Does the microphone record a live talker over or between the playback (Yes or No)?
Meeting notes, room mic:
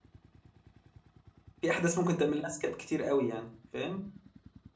Yes